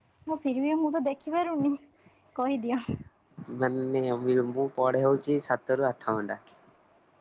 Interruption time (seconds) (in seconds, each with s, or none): none